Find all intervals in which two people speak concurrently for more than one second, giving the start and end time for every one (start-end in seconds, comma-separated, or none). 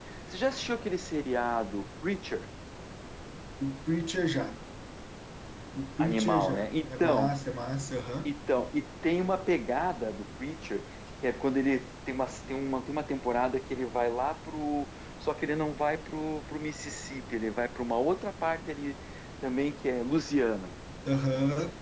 6.0-7.4